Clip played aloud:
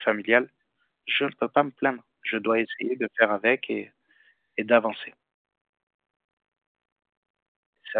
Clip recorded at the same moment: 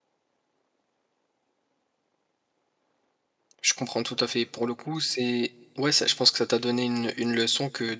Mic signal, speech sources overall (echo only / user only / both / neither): user only